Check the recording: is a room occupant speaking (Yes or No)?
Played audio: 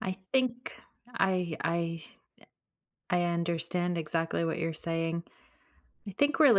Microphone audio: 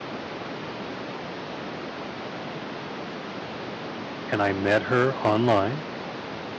Yes